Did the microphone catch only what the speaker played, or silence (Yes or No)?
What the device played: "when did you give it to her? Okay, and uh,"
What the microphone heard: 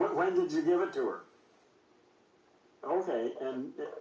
Yes